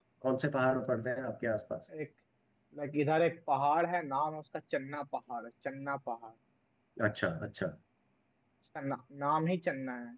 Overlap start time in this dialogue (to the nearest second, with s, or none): none